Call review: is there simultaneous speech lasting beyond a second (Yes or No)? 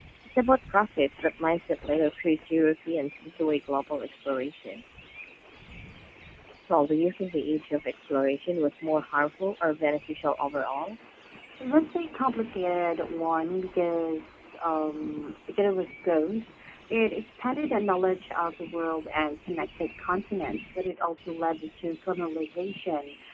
No